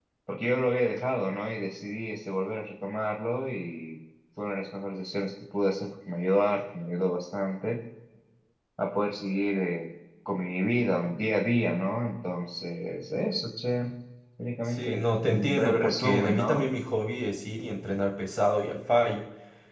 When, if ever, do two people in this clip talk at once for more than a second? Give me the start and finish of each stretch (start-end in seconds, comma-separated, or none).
14.7-16.7